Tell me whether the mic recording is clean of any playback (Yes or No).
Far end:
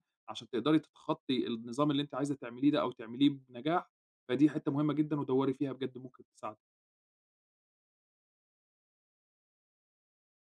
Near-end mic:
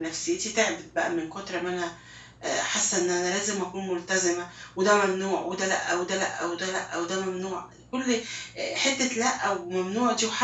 Yes